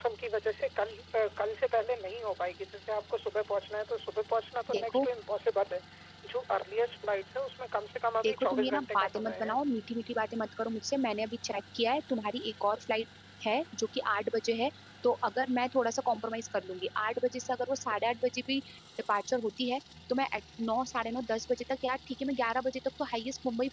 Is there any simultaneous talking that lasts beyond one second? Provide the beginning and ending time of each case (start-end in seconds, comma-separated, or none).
8.2-9.6